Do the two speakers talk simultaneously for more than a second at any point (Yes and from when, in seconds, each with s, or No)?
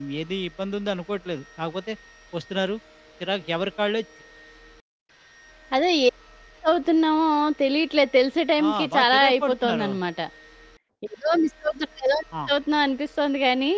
Yes, from 8.6 s